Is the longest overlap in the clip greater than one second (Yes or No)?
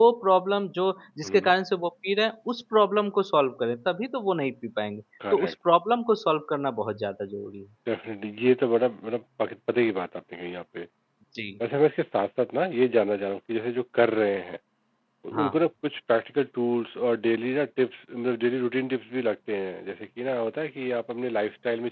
No